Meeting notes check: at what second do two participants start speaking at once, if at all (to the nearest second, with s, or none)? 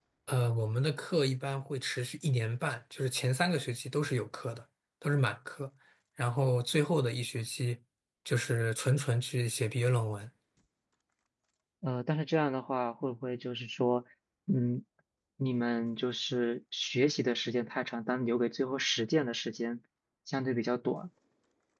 none